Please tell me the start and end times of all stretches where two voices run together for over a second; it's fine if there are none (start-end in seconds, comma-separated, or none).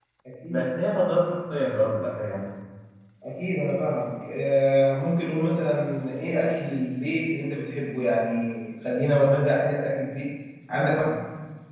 none